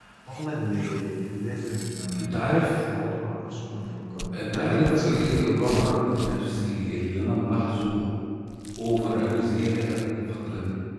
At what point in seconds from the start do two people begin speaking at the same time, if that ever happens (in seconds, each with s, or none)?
4.3 s